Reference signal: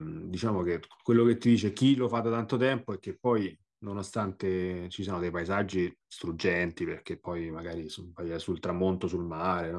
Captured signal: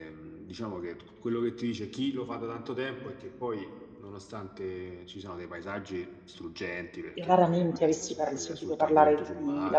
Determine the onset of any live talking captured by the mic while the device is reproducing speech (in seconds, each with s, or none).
7.1 s